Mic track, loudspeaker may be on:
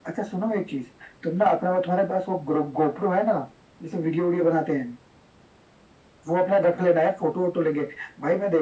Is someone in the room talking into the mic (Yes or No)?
No